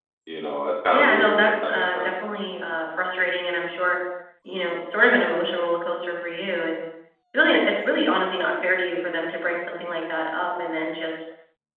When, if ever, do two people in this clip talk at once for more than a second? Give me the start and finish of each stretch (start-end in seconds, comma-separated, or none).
0.9-2.2